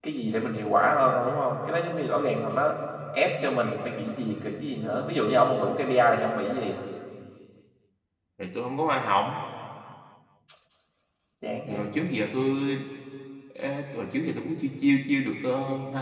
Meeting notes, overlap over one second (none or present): none